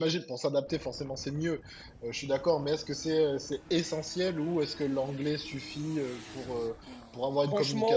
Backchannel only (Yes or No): No